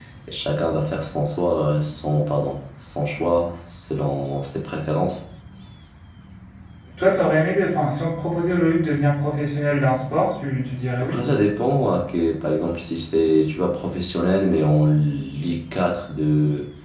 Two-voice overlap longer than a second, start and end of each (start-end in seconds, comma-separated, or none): none